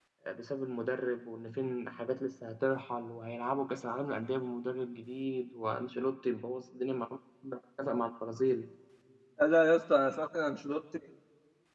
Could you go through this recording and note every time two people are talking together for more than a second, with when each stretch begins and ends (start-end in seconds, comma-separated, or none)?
none